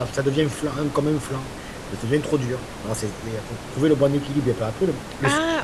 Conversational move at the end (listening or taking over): listening